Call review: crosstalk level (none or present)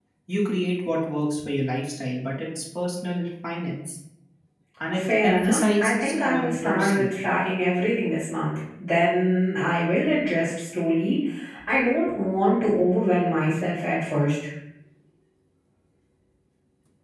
present